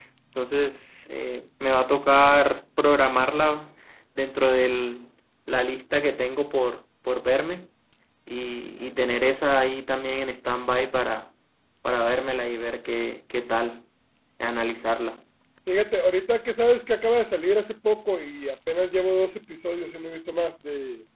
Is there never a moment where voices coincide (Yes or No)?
Yes